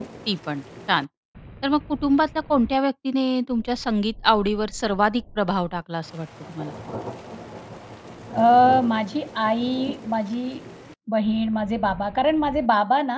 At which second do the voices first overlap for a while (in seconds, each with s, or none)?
none